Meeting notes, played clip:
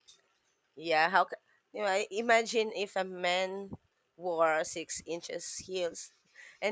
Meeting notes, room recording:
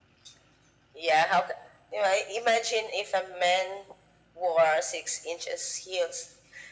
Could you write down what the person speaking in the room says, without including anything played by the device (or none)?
none